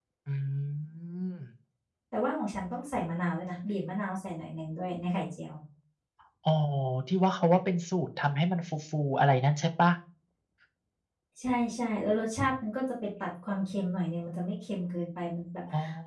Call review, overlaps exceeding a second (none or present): none